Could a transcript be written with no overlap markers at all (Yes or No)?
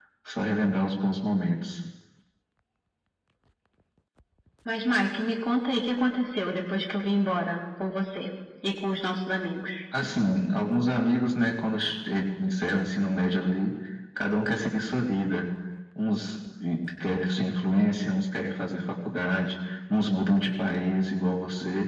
Yes